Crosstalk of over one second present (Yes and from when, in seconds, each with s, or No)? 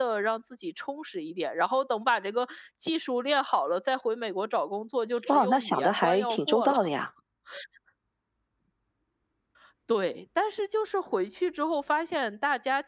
Yes, from 5.2 s